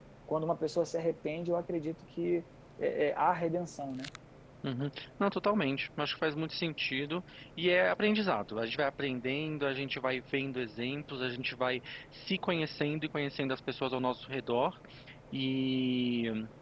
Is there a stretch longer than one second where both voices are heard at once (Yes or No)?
No